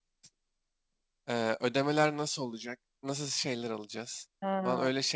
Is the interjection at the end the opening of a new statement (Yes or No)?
Yes